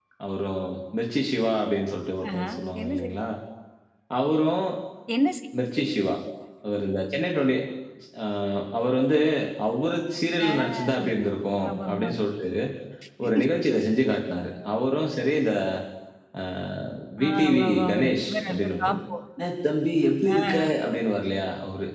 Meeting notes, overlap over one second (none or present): present